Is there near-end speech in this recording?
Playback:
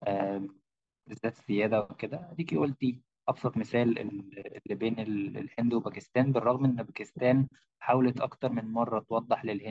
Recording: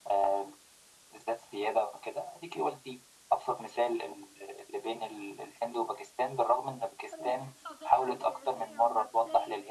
Yes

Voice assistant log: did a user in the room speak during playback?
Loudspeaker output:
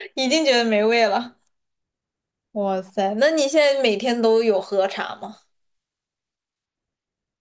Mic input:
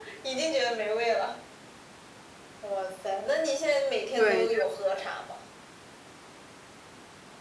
Yes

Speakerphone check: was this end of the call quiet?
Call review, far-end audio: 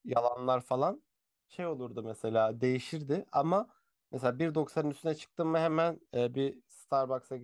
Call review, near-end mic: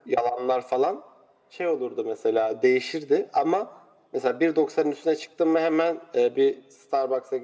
Yes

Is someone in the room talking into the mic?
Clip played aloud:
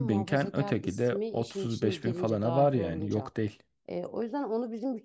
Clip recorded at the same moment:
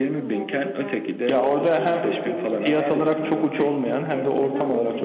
Yes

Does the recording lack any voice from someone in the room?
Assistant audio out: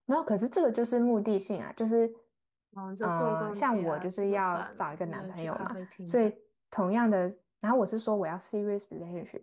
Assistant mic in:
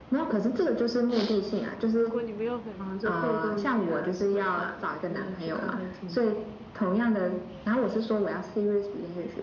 No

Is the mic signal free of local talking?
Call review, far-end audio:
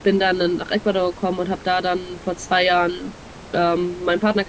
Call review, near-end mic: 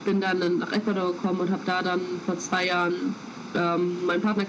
Yes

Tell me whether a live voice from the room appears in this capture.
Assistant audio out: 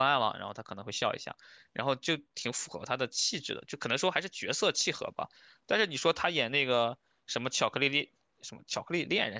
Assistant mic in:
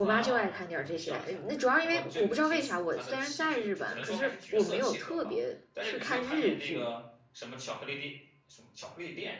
Yes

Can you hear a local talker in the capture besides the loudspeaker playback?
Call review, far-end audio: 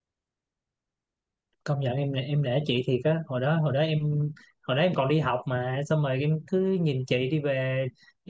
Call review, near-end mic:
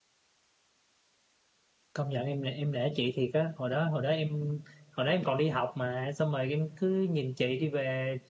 No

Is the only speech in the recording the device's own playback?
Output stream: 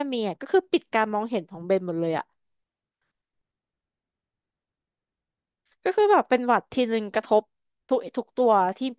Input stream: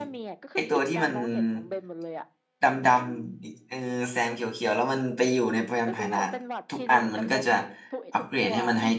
No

